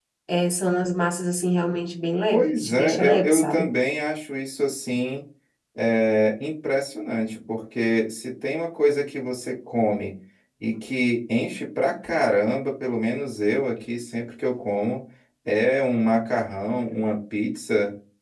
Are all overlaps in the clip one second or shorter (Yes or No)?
No